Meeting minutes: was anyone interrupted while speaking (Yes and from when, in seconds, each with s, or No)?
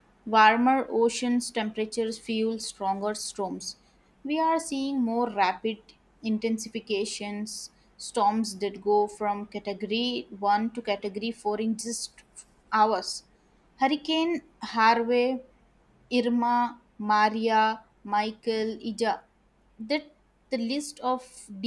No